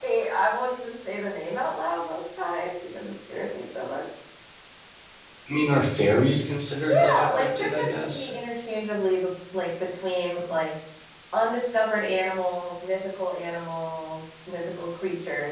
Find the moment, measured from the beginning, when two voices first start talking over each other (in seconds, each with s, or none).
6.8 s